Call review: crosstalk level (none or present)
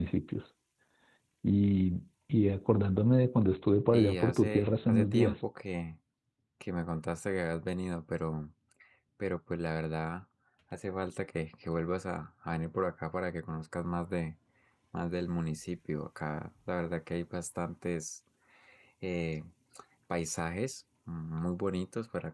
present